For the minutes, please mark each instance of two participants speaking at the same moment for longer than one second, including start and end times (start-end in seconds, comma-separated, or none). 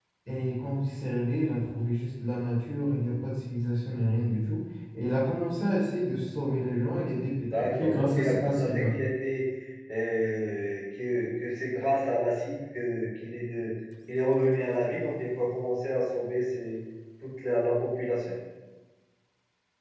7.5-9.0